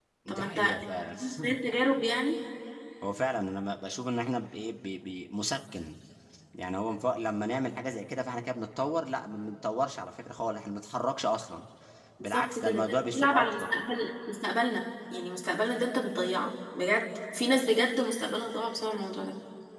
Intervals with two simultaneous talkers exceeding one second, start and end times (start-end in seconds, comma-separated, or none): 12.2-13.6